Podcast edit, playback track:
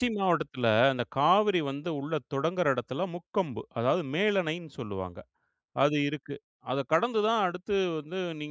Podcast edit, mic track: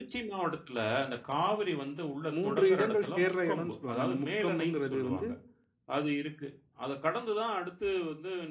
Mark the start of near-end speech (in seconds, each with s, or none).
2.4 s